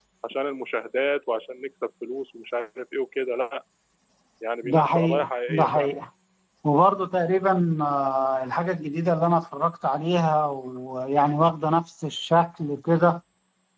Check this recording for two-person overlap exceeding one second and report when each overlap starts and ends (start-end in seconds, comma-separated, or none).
4.6-5.9